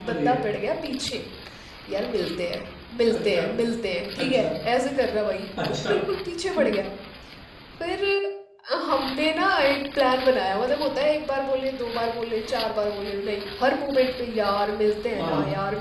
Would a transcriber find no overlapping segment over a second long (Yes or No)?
Yes